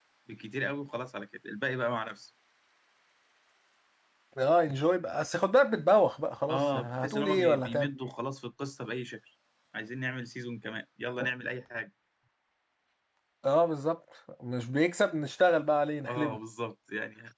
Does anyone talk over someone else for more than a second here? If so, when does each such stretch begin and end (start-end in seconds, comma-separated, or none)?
6.5-7.9